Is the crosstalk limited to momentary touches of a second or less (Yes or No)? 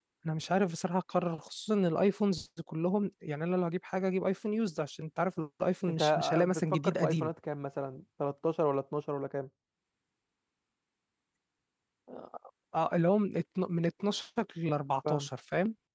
No